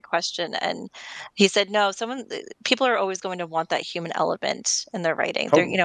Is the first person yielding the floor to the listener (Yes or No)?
No